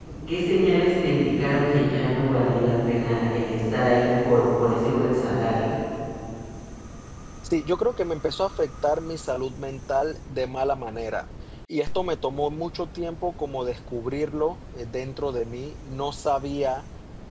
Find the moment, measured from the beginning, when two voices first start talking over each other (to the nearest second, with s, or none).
none